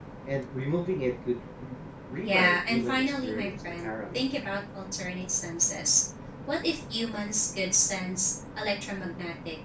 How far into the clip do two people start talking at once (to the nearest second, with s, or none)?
2 s